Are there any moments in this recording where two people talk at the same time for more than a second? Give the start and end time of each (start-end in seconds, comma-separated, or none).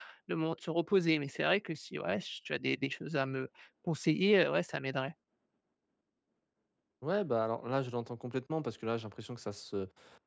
none